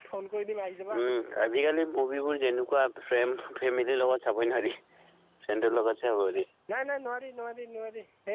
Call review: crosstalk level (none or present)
none